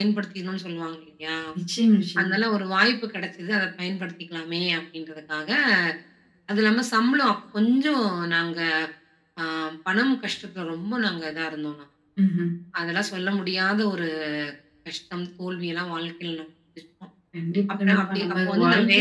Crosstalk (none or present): present